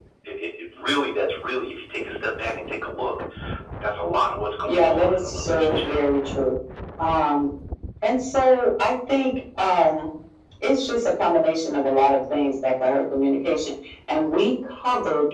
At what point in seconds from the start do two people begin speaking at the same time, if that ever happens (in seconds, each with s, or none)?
4.7 s